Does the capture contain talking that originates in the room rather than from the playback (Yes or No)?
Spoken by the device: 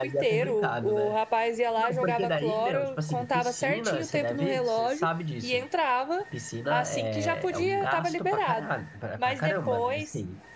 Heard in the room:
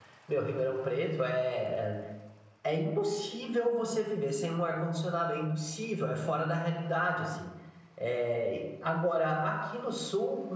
Yes